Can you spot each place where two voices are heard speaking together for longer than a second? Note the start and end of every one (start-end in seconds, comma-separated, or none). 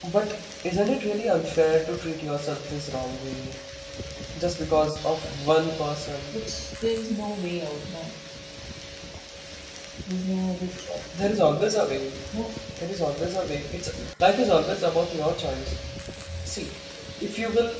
none